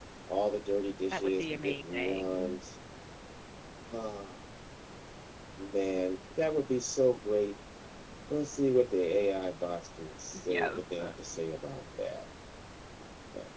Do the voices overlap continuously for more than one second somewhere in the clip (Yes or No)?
Yes